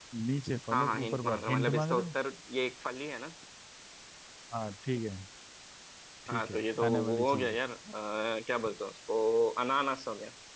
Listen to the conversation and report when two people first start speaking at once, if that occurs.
1 s

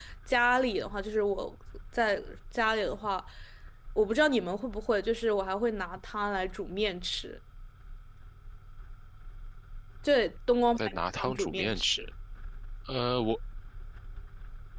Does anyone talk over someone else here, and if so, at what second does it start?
11 s

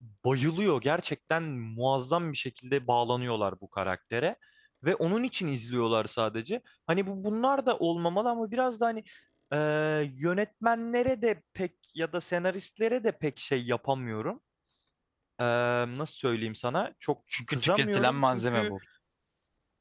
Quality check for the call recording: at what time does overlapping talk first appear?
17 s

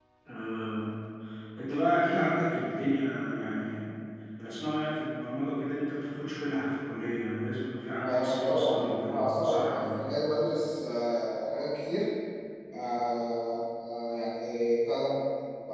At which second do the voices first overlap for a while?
8 s

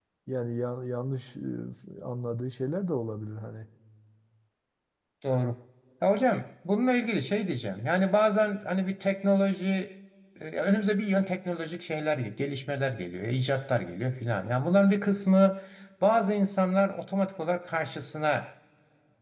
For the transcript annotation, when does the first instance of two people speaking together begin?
none

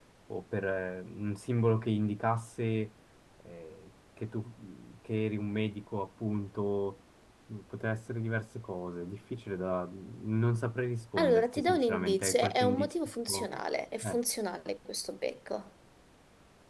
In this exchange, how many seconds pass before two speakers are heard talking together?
11 s

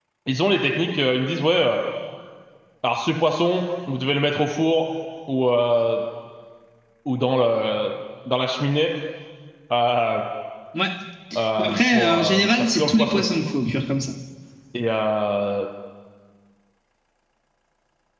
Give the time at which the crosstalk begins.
12 s

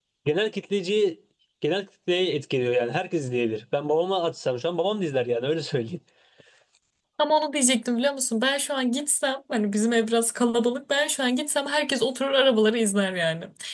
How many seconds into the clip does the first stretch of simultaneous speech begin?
none

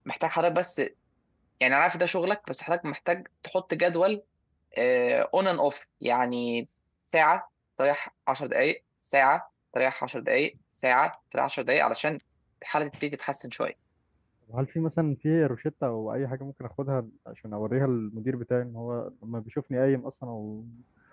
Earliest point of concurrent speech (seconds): none

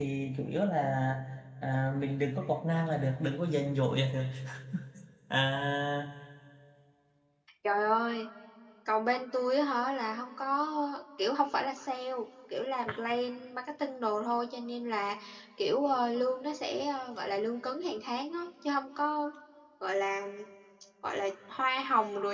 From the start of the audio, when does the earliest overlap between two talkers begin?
none

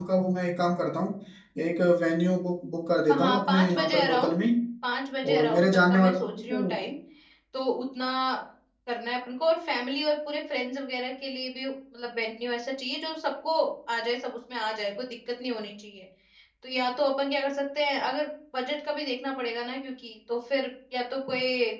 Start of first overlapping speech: 3 s

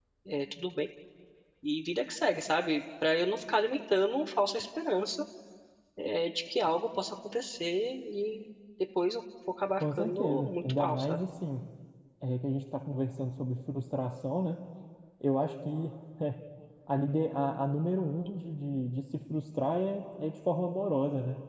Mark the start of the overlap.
10 s

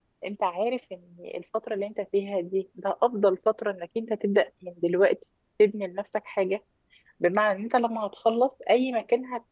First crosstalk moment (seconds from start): none

